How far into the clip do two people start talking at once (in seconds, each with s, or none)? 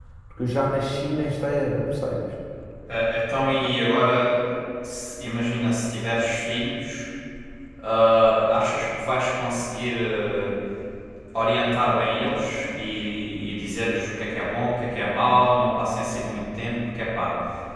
none